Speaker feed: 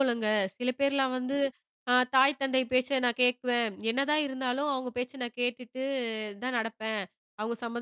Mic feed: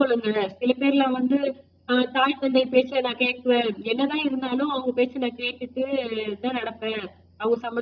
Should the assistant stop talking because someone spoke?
No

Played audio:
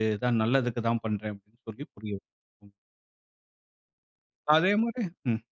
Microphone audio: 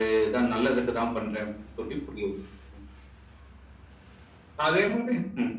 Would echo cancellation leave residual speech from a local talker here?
No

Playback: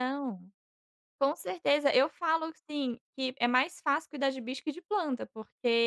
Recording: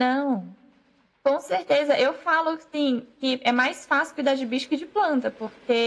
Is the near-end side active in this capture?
No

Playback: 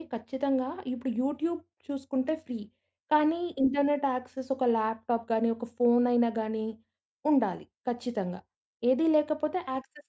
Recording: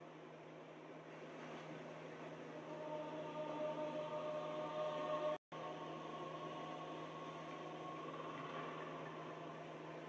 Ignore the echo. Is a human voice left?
No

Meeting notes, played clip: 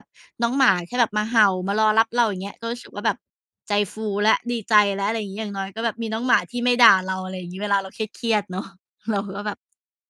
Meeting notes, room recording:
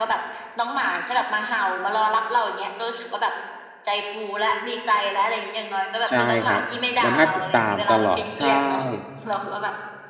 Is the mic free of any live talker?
No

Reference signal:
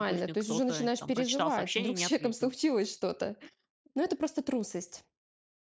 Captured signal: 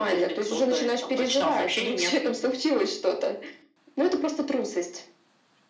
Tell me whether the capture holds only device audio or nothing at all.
Yes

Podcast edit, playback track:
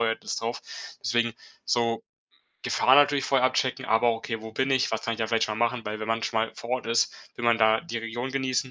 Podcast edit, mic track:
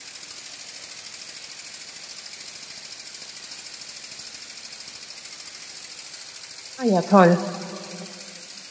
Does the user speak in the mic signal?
Yes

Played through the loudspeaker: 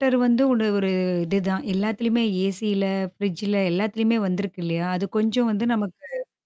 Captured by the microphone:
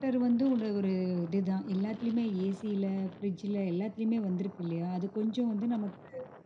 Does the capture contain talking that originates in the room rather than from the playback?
No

